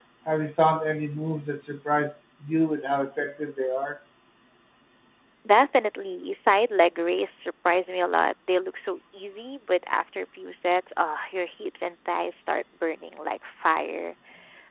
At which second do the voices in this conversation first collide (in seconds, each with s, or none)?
none